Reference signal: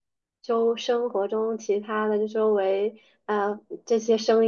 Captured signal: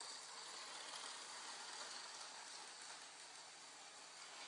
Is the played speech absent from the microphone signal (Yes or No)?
Yes